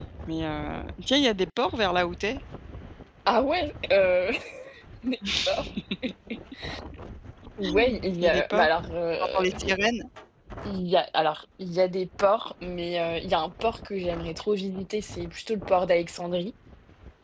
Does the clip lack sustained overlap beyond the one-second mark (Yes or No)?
Yes